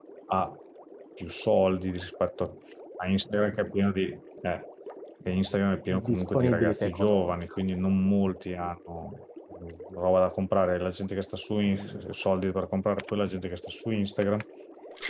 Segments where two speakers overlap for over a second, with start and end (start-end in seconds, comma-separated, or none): 6.1-7.4